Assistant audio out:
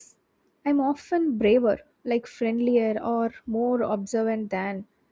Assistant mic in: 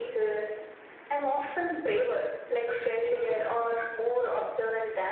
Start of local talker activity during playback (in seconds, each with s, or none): none